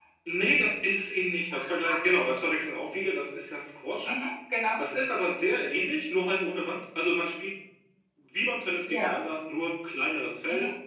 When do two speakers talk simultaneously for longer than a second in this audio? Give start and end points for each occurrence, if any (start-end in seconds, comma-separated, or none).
none